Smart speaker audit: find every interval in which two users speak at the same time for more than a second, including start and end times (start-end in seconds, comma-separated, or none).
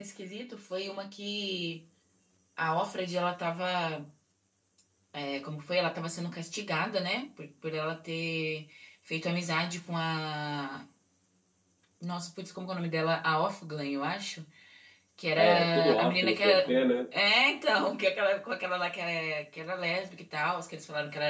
15.3-16.6